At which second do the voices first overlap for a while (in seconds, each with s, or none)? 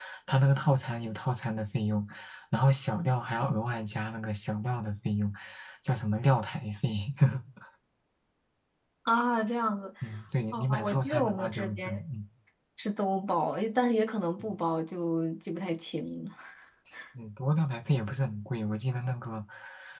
10.5 s